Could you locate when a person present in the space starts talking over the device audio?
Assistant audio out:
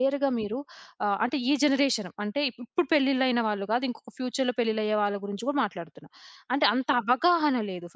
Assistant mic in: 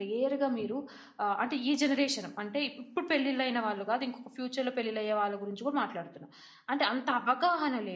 none

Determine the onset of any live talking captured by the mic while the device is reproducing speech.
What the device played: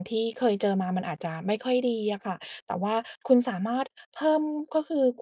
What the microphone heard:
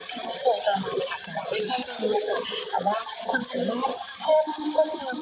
none

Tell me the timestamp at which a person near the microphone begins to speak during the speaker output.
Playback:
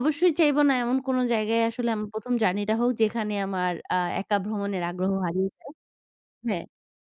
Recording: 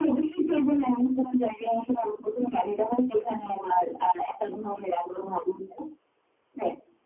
none

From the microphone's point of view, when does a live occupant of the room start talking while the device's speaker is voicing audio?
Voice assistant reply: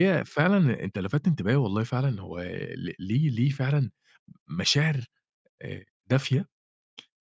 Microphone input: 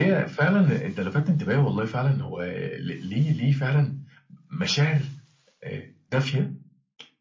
none

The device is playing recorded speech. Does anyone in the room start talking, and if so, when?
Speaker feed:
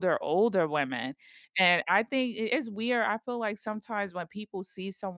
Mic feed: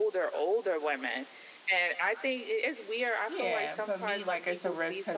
3.3 s

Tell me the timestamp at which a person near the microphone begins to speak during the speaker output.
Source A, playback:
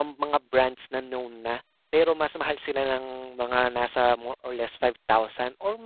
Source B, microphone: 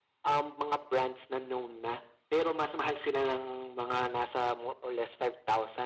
none

